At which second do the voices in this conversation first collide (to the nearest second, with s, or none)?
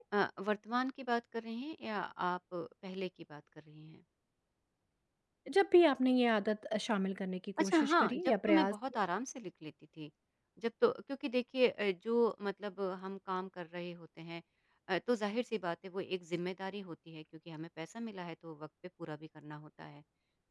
8 s